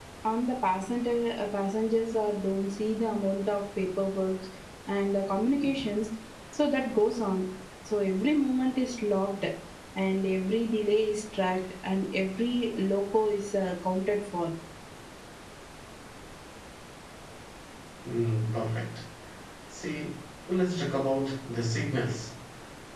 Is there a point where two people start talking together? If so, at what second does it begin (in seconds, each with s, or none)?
none